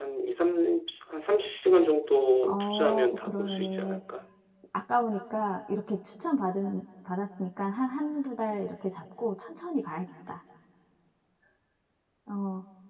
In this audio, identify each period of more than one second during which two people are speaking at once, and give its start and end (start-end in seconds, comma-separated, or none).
2.5-4.0